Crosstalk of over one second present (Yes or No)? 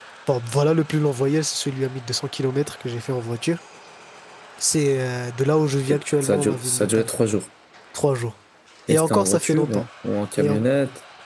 Yes